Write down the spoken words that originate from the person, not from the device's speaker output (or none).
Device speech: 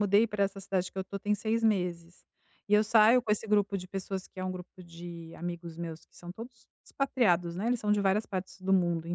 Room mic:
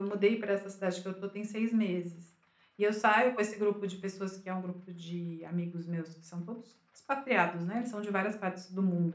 none